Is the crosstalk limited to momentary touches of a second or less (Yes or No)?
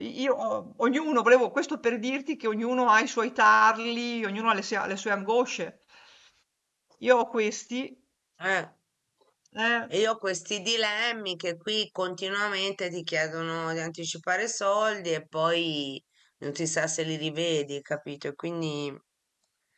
Yes